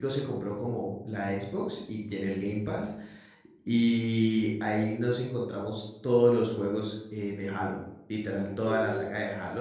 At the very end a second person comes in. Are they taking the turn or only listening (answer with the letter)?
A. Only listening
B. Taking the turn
A